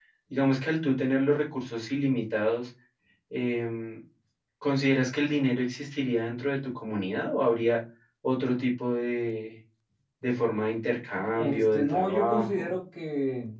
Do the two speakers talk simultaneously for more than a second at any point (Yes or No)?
Yes